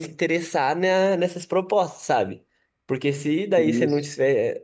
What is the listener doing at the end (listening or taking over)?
listening